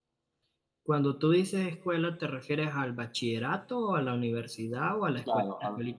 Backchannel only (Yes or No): No